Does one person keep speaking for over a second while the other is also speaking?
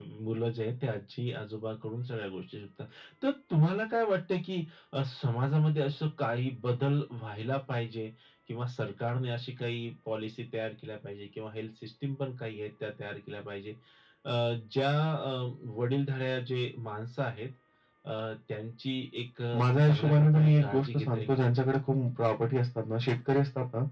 Yes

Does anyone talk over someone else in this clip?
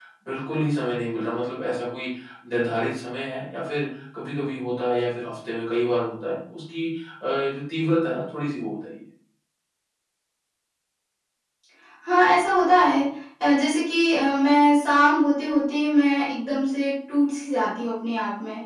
No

